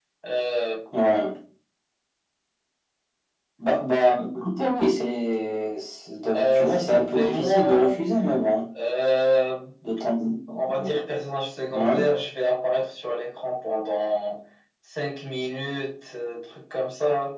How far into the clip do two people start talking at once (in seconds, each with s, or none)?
6.3 s